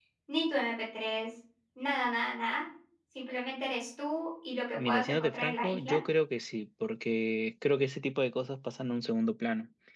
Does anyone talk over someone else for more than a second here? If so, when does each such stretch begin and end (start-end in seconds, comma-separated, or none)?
4.8-6.0